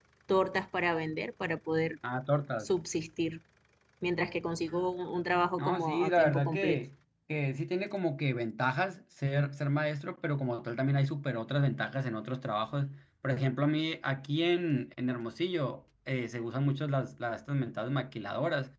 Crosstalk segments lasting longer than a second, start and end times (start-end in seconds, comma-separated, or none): 5.6-6.8